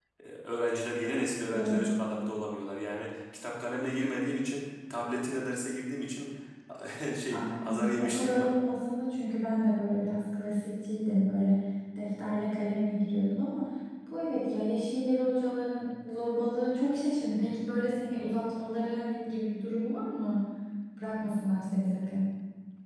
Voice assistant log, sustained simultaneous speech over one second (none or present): present